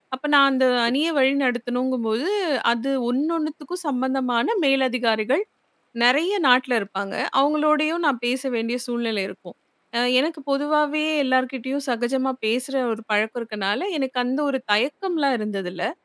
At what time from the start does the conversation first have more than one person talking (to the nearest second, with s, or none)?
none